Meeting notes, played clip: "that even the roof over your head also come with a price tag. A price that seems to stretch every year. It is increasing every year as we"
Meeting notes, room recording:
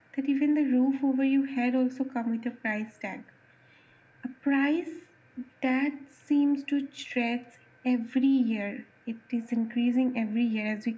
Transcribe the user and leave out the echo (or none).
none